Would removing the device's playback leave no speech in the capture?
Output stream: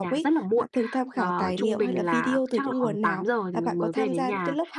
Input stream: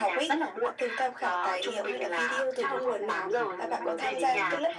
No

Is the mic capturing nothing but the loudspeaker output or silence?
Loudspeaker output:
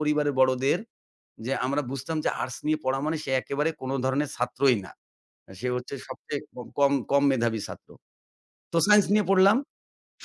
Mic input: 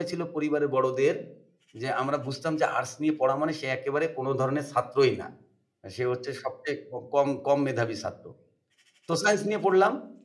Yes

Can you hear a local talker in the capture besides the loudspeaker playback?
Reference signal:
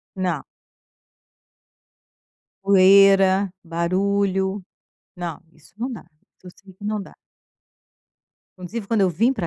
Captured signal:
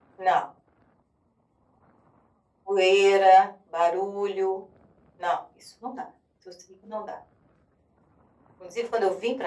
No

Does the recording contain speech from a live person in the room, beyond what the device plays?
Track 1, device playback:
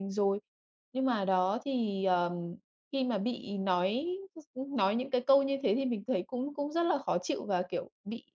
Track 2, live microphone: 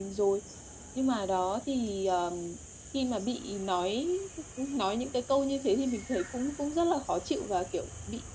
No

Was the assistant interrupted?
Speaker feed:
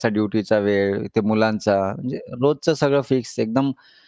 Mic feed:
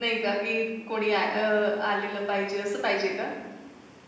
Yes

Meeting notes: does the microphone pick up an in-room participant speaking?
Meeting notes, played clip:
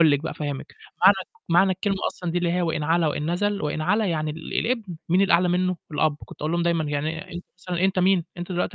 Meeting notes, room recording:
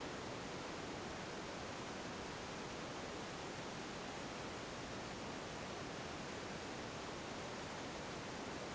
No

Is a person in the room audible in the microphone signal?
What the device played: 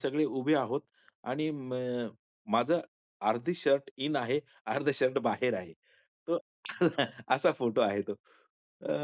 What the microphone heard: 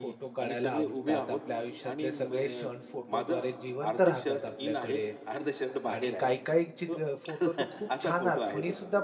Yes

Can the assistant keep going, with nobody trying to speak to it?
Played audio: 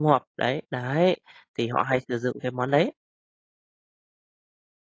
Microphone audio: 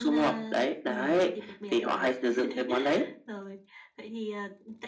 No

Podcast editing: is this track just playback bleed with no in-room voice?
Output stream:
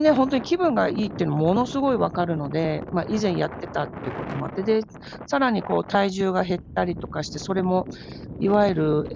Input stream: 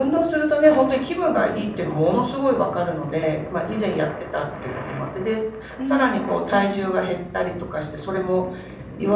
No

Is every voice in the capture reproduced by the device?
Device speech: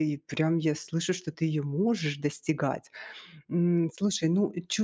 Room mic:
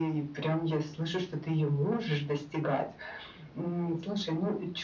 Yes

